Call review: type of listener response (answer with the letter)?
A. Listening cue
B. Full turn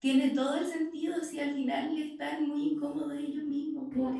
B